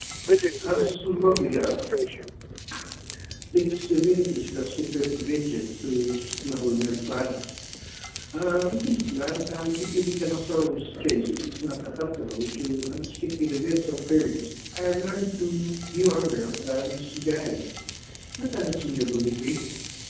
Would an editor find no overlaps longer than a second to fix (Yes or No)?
No